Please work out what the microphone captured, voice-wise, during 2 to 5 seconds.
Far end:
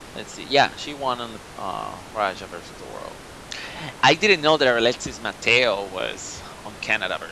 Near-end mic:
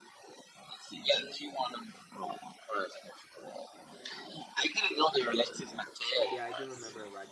echo only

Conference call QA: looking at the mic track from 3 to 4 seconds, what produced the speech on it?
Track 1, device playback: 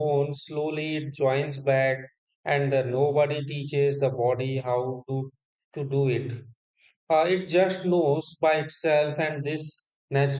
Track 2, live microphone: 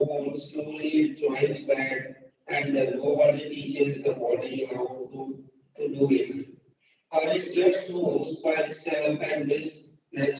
echo only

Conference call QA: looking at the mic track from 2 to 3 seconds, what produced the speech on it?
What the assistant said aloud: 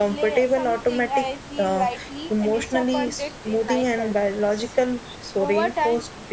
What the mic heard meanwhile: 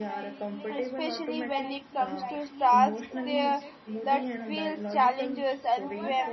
both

